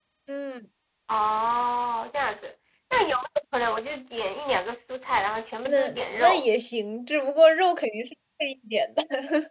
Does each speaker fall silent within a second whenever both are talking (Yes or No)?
Yes